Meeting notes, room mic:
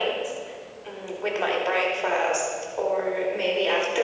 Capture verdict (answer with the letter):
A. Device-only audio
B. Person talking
A